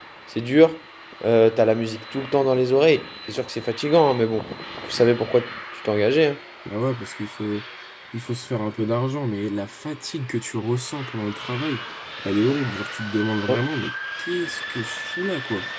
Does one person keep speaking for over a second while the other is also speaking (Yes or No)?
No